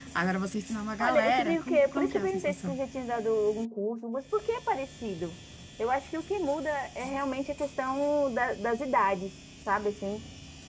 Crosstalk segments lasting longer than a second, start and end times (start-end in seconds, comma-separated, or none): 1.0-2.8